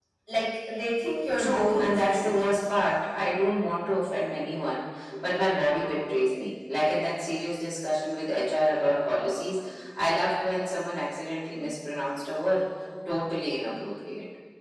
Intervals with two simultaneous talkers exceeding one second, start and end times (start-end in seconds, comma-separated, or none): 1.4-2.6